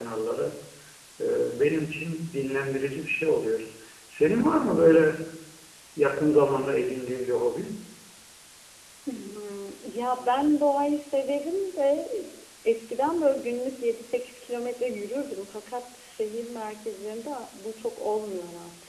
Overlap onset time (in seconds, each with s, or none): none